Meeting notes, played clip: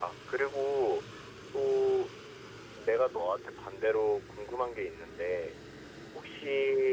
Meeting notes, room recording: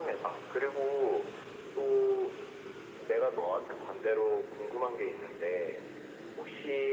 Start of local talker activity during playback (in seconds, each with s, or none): none